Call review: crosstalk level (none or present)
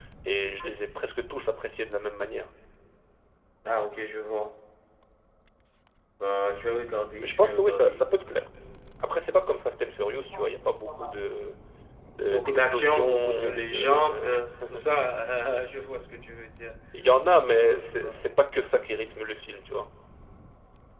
present